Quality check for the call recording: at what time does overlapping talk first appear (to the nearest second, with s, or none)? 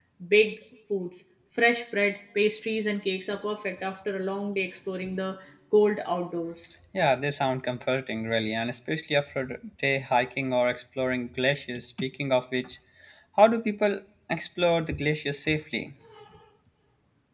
none